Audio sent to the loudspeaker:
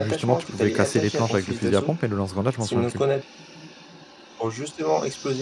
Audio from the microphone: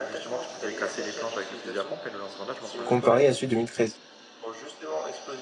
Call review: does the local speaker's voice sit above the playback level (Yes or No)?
Yes